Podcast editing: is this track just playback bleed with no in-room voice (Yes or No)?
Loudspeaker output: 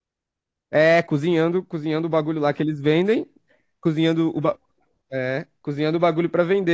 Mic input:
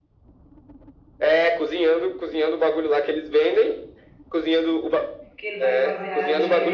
No